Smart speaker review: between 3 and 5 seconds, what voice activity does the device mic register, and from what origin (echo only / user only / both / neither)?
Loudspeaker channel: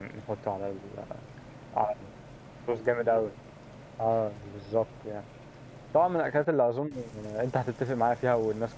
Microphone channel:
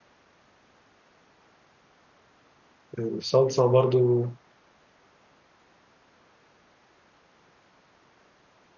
user only